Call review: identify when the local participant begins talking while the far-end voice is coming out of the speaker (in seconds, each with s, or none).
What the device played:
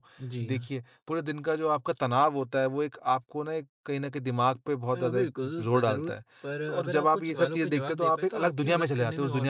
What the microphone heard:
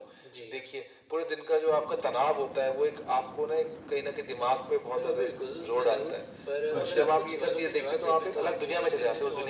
6.7 s